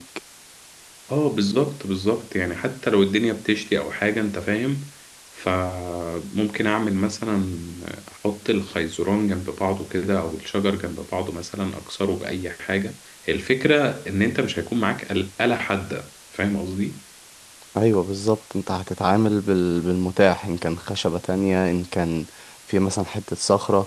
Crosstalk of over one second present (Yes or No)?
No